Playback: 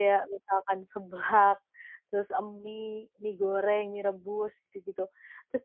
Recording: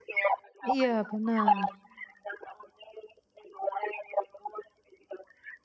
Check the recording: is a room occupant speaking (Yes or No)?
Yes